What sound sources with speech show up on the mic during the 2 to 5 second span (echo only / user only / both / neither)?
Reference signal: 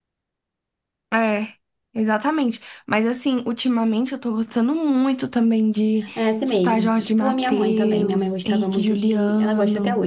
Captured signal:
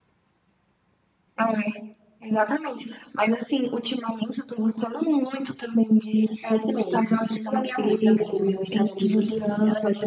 echo only